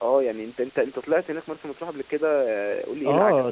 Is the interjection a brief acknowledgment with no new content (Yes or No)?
No